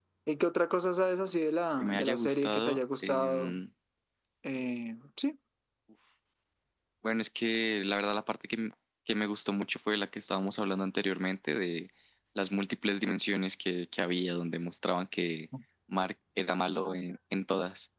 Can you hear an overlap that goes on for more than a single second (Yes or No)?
Yes